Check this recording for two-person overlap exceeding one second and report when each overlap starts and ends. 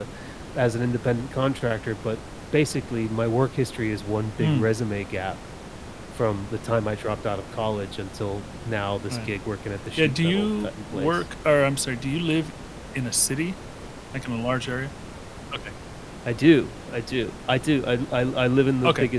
10.0-11.2

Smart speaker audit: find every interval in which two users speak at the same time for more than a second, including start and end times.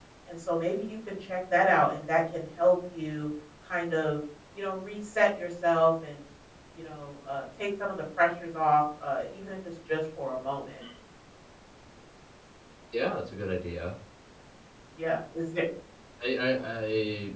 none

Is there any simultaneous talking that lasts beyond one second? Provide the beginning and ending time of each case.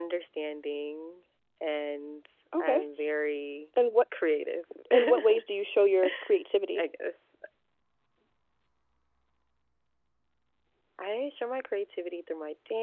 none

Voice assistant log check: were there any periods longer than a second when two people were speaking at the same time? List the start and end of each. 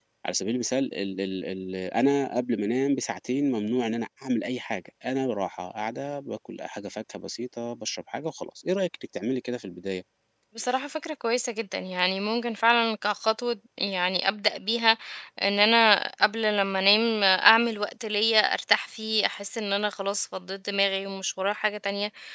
none

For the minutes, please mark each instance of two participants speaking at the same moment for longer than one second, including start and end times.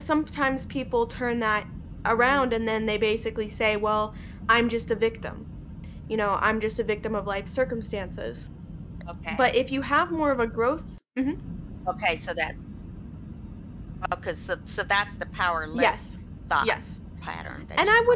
none

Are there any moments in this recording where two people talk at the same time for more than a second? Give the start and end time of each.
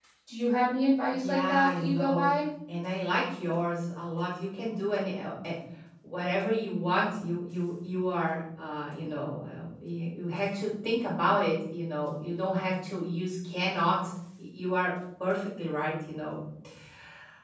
1.1-2.3

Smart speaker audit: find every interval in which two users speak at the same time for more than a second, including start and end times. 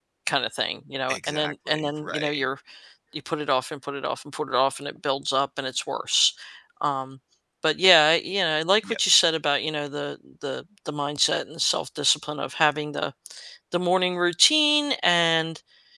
1.1-2.5

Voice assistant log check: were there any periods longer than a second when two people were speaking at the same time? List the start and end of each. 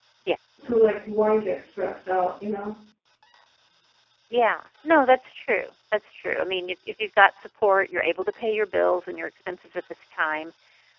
none

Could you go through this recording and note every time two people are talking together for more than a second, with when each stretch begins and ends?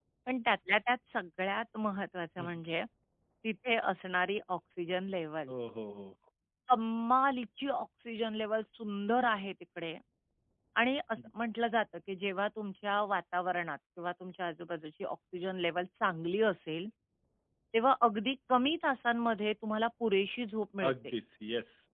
none

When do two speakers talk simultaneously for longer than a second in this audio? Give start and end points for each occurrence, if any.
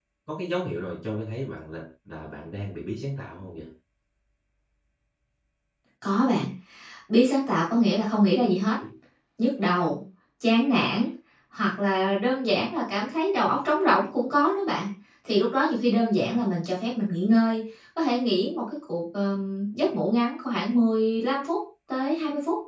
none

